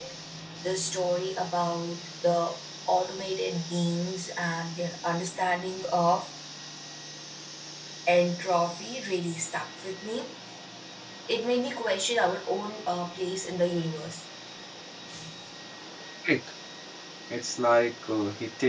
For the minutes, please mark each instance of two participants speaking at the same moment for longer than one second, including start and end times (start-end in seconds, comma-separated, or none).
none